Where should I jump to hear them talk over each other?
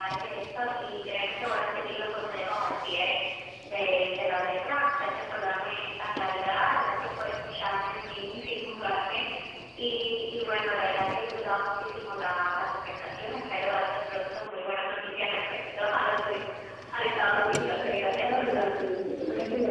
17.0 s

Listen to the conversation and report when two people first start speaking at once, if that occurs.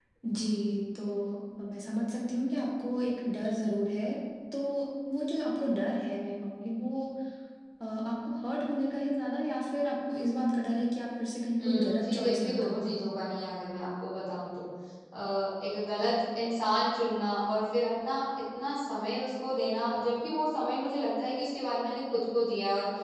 11.6 s

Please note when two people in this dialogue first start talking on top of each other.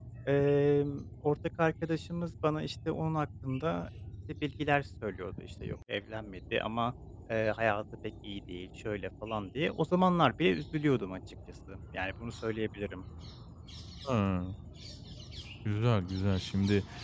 none

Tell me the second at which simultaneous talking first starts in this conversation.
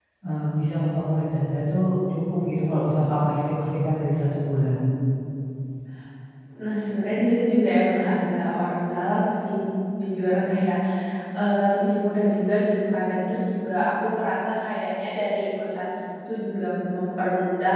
none

